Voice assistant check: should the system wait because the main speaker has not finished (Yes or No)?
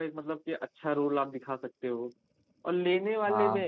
Yes